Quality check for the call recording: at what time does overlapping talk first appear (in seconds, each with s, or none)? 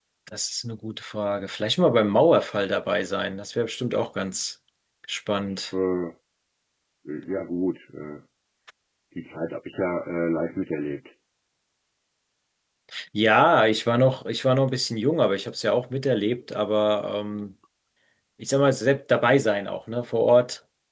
none